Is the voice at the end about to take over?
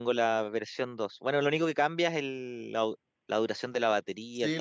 Yes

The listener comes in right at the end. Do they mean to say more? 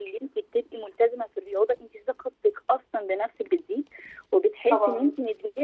No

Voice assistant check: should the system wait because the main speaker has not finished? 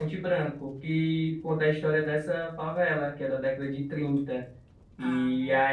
Yes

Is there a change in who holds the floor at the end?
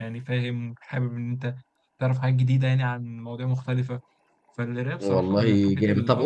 Yes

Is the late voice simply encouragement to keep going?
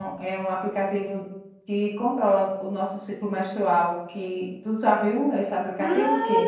No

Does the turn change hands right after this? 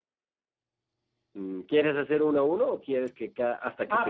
Yes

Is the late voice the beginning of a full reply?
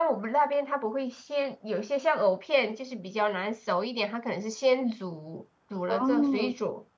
No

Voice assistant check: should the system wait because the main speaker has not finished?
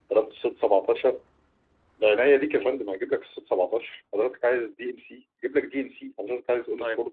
No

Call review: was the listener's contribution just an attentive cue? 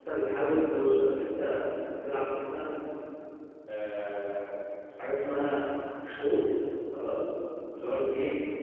Yes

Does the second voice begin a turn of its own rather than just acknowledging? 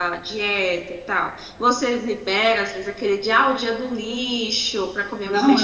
Yes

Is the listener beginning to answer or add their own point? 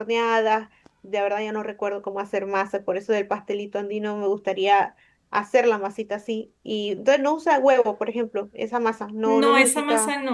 Yes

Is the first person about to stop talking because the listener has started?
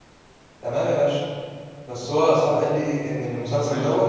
No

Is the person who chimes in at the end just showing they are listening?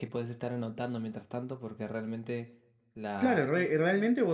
No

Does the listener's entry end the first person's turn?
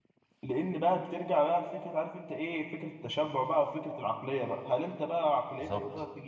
No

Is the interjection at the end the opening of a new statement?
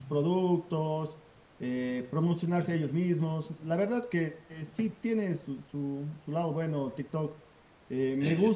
No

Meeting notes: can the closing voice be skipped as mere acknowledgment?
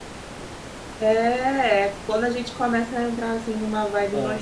Yes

